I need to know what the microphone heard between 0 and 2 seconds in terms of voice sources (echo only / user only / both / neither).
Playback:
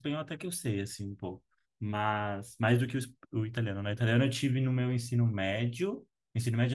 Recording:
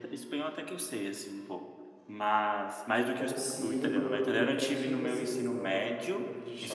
echo only